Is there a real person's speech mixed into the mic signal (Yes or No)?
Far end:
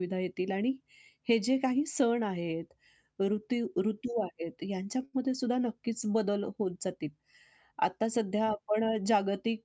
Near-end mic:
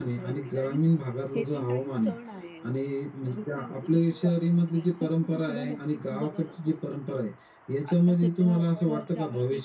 Yes